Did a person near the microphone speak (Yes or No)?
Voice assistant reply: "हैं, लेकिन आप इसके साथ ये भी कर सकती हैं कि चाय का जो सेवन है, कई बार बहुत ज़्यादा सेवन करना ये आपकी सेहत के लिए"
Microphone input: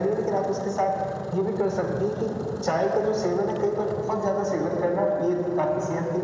No